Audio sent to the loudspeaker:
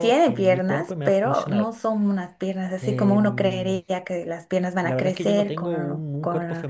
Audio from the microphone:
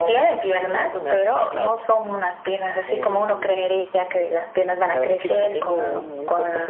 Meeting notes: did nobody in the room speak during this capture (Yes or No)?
Yes